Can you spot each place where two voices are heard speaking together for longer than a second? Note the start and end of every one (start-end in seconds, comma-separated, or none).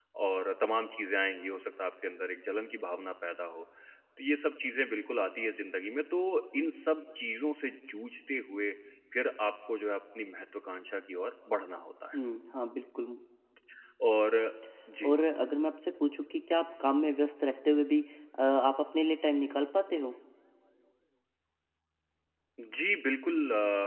none